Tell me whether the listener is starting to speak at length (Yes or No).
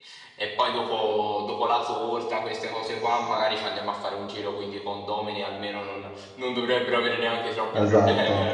Yes